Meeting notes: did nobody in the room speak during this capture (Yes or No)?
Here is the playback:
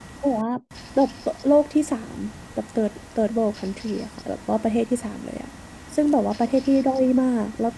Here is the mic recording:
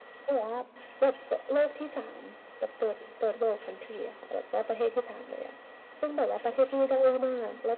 Yes